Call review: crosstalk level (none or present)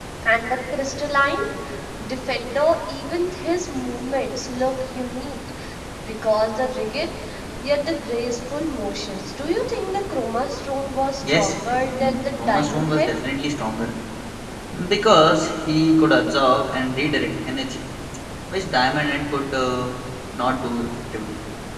present